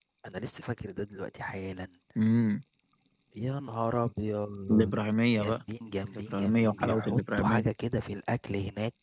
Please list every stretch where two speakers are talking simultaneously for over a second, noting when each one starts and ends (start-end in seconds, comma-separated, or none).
6.1-7.6